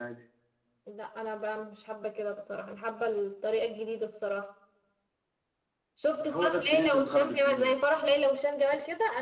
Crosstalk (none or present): present